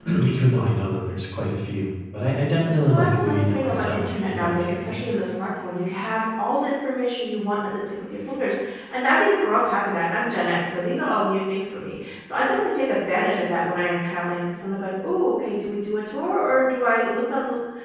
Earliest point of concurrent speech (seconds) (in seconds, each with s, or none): 2.9 s